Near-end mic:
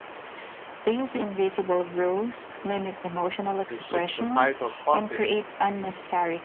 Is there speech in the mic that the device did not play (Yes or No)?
Yes